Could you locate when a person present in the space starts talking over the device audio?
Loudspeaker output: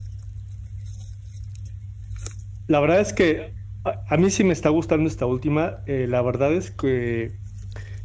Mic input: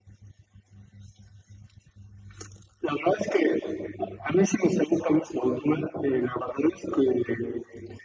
none

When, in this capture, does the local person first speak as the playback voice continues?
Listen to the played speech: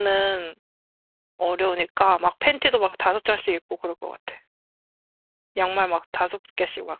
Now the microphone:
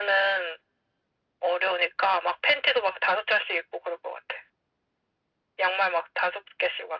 none

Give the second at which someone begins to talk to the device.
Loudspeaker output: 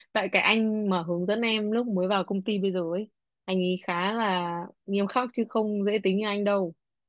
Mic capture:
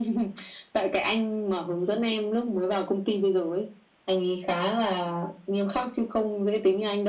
none

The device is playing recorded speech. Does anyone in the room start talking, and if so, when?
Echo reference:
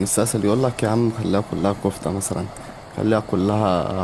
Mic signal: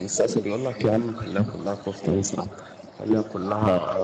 none

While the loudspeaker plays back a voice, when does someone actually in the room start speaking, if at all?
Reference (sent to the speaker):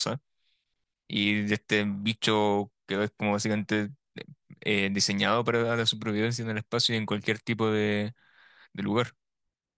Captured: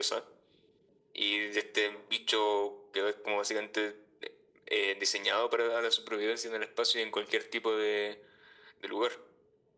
none

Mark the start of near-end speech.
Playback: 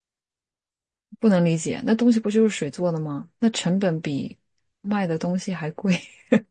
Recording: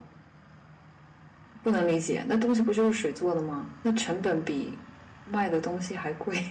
none

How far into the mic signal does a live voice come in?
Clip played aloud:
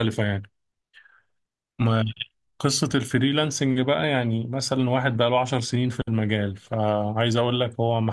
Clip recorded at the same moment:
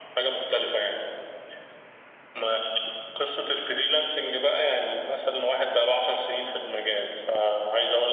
none

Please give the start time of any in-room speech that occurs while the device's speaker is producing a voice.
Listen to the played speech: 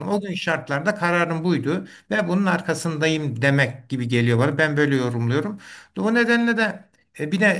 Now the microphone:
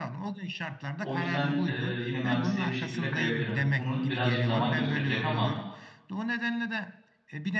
1.0 s

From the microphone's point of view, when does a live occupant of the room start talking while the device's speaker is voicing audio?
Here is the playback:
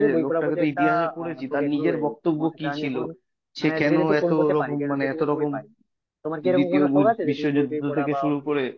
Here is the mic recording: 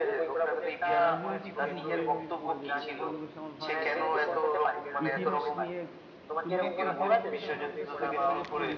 0.9 s

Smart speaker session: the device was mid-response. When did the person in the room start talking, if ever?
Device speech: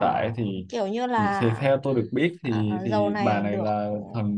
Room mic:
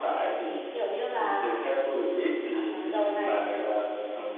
none

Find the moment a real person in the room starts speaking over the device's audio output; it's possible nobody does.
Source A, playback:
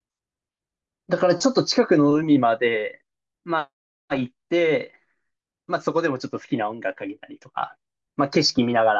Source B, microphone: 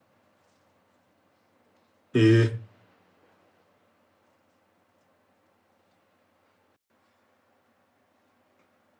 2.1 s

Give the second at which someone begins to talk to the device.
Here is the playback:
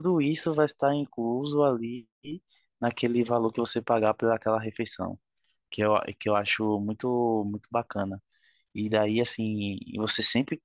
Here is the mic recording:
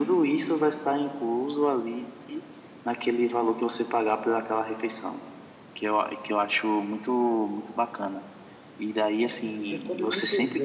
9.1 s

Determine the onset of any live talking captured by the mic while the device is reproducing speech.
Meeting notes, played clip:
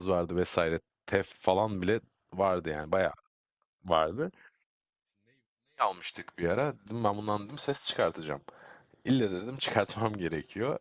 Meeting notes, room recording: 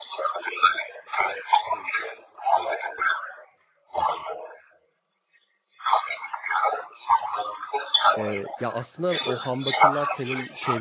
8.2 s

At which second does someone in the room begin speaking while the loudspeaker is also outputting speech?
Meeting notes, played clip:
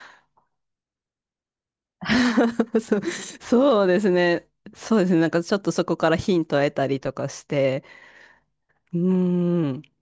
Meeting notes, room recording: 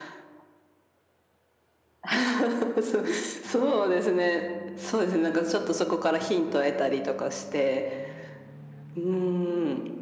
none

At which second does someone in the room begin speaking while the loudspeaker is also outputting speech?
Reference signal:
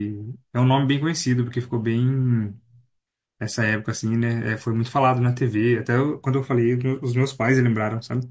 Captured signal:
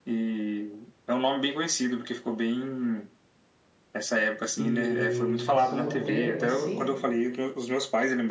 4.1 s

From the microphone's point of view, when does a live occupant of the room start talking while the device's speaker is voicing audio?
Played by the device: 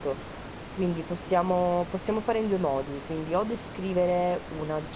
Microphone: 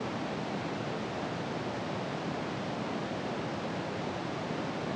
none

